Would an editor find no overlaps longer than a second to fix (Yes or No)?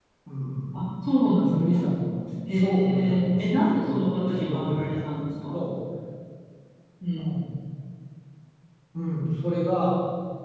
No